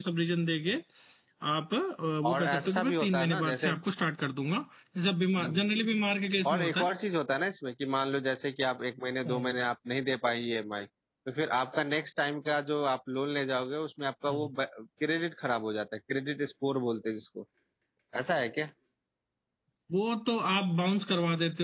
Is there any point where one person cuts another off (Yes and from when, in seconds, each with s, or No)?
Yes, from 2.3 s